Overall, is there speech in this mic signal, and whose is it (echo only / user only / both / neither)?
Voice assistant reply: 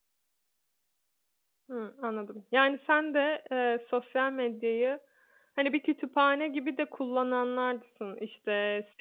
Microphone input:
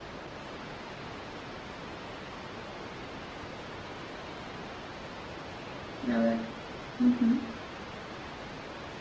user only